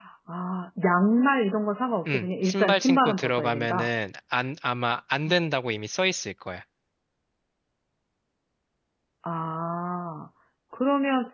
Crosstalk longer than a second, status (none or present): present